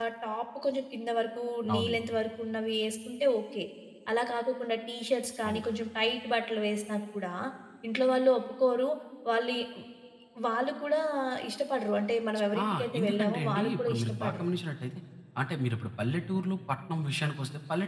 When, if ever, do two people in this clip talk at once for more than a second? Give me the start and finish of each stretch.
12.6-14.4

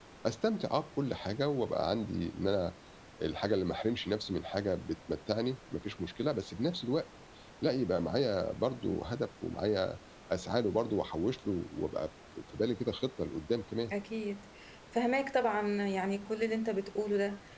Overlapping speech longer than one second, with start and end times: none

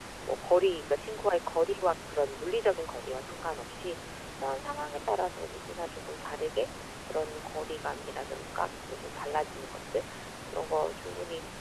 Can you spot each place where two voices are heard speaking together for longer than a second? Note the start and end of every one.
none

